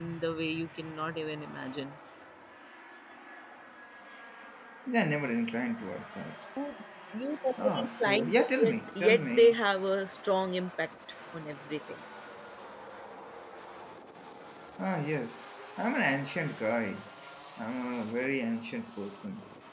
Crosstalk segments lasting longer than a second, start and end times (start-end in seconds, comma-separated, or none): 7.6-9.6